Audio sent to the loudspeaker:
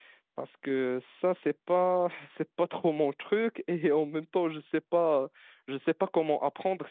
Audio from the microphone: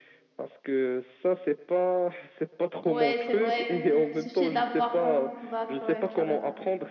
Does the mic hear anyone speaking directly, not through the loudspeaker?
Yes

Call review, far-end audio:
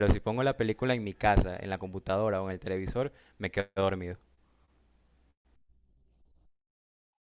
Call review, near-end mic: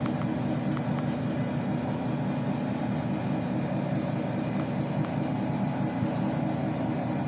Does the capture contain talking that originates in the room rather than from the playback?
No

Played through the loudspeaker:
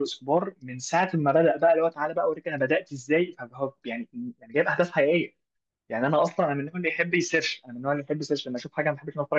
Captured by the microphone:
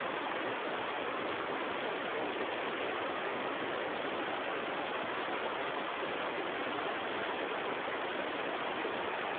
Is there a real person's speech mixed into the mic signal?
No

